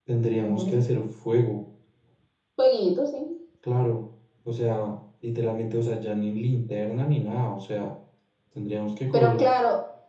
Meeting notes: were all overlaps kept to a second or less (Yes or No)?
Yes